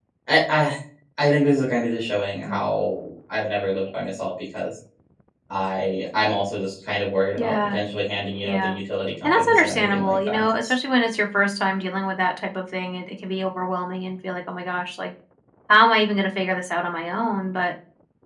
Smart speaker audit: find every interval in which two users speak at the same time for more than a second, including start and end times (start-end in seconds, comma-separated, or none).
9.2-10.5